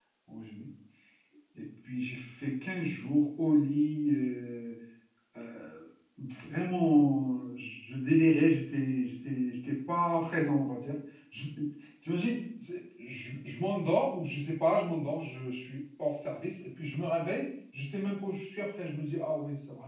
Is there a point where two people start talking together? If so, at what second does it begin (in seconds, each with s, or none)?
none